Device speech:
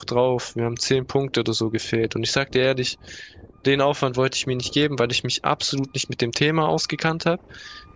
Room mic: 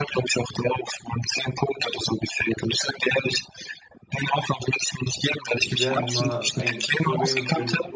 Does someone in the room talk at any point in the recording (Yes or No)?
Yes